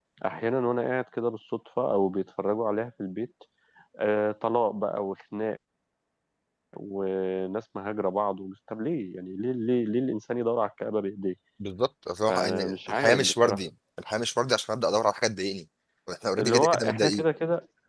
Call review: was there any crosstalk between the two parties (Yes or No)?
Yes